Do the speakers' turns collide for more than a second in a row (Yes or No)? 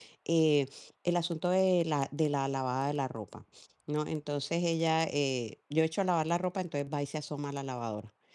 No